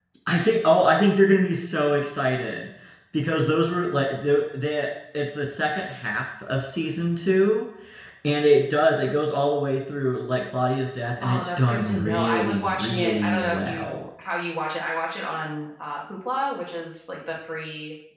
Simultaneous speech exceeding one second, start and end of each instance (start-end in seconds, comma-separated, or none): 11.2-14.1